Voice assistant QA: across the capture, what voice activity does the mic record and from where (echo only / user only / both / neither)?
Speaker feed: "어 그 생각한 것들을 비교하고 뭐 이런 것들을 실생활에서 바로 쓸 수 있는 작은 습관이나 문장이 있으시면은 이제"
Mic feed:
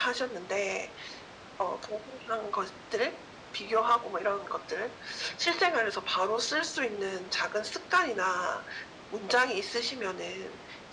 echo only